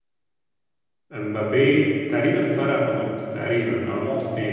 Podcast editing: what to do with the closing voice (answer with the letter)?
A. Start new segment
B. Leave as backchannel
A